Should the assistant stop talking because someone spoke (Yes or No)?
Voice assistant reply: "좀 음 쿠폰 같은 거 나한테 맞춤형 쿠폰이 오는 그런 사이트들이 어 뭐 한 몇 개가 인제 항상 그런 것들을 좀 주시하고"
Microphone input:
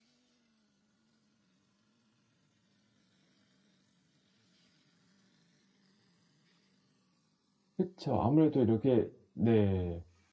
Yes